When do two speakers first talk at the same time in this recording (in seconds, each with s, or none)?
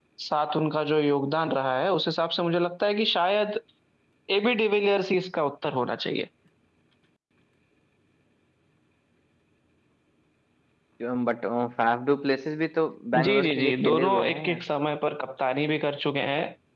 13.1 s